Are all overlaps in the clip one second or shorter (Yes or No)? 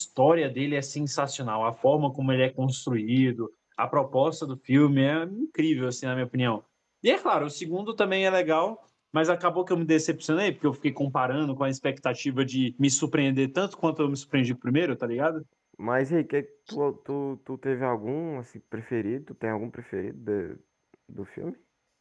Yes